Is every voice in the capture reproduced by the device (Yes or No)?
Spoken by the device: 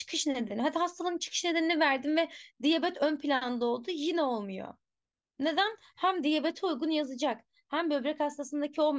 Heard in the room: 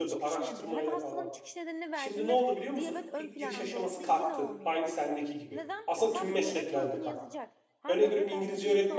No